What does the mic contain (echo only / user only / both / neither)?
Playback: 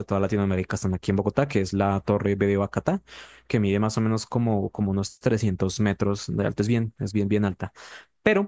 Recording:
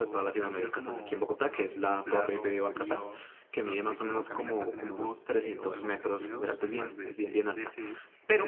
both